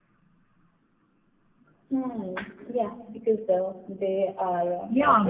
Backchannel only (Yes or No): No